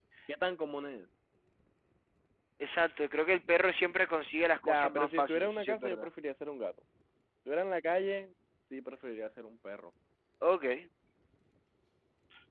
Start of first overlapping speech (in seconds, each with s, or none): 4.6 s